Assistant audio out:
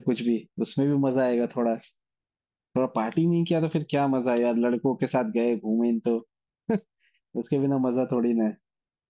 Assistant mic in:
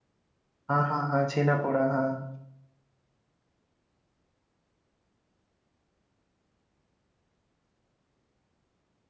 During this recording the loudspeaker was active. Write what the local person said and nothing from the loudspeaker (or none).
हाँ हाँ हाँ छेना पोड़ा हाँ